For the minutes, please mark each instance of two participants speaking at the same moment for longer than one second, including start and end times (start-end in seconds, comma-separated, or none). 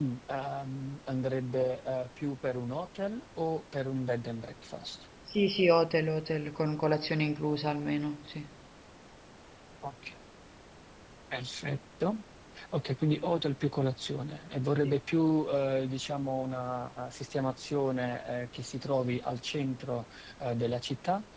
none